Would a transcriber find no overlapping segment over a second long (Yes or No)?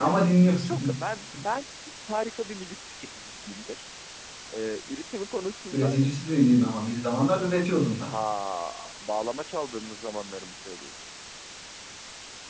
Yes